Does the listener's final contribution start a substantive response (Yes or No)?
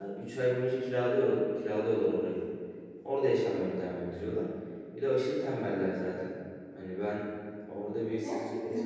No